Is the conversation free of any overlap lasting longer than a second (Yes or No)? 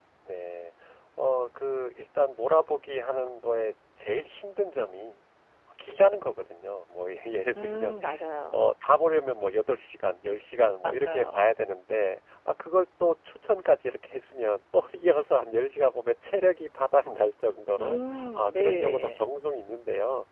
No